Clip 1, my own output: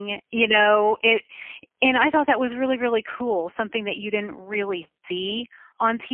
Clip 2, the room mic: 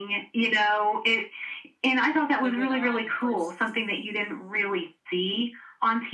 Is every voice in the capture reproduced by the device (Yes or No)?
No